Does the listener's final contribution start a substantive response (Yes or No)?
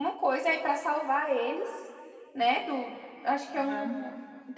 No